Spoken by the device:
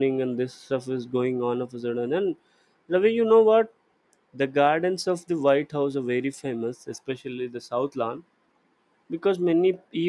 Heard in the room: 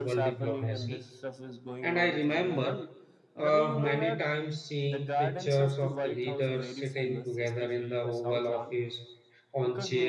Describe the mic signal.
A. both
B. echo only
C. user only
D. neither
A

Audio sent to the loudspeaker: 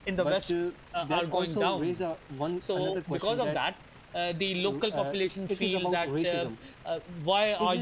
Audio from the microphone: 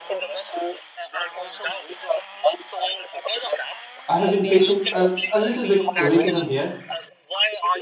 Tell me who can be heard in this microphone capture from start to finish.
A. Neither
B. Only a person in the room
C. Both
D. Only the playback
C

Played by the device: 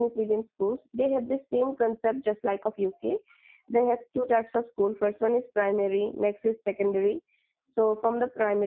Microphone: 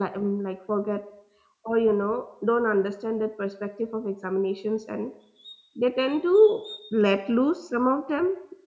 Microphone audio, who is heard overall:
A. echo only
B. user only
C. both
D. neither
B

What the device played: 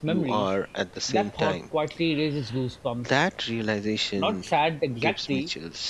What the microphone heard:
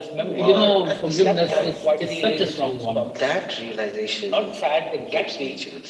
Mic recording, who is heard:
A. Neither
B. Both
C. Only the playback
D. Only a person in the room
B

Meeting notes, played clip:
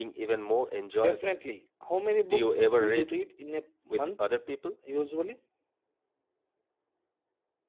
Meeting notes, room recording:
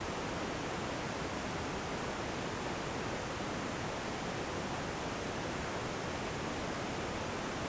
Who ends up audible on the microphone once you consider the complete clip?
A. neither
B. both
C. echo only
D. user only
A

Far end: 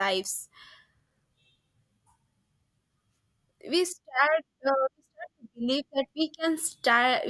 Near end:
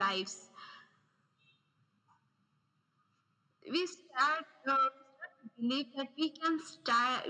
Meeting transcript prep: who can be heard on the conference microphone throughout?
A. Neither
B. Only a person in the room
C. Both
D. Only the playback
D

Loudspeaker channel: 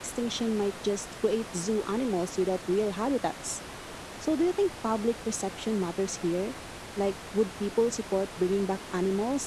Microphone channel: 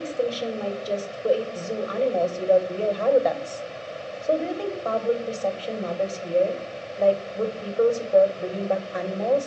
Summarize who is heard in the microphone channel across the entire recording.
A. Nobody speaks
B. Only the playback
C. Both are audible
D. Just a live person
B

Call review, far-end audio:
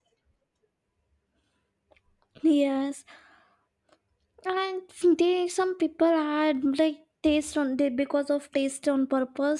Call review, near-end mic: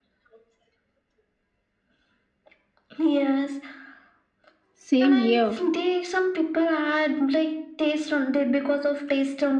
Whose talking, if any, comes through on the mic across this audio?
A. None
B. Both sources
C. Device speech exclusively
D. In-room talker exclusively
B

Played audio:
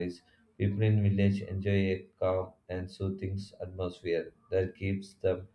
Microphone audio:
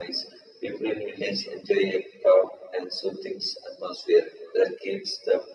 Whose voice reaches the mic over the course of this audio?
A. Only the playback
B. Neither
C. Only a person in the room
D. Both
A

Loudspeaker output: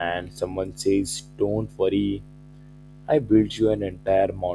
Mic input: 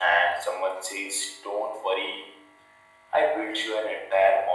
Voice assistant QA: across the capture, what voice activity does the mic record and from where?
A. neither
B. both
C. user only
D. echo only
D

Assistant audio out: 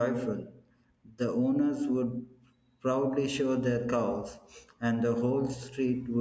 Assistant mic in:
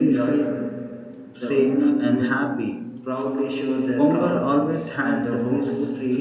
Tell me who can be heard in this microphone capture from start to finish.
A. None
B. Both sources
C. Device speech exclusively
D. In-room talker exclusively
B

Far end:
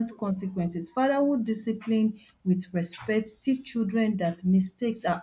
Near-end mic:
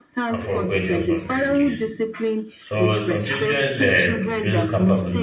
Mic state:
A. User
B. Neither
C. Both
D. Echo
C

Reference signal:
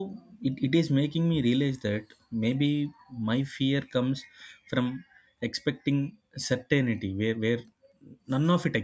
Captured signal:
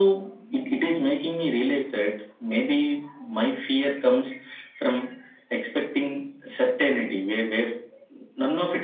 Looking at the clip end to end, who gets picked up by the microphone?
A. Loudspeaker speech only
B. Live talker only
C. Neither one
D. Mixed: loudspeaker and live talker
A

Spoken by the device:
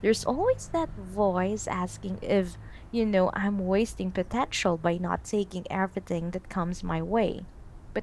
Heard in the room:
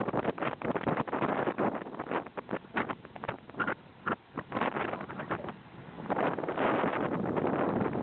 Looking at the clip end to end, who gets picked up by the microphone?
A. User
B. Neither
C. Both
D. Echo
B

